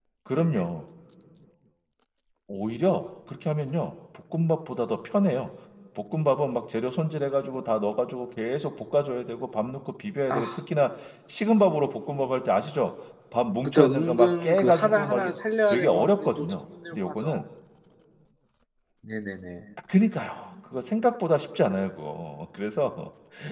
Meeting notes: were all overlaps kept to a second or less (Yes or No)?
No